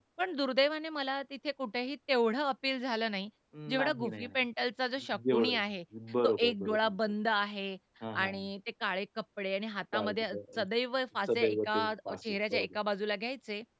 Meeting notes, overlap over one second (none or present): present